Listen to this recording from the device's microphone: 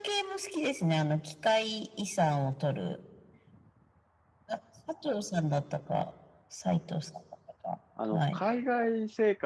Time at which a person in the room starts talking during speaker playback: 7.9 s

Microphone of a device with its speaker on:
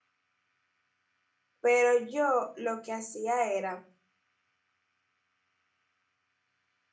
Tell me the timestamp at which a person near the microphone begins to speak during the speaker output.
1.6 s

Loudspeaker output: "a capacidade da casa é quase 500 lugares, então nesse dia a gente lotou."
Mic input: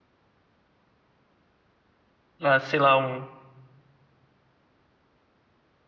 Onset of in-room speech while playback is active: 2.4 s

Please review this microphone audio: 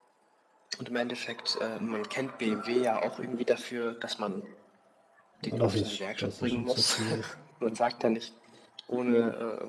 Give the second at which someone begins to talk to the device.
5.5 s

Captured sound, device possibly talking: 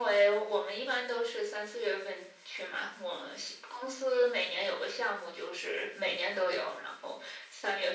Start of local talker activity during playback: none

